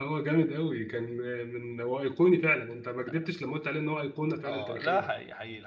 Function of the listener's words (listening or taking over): taking over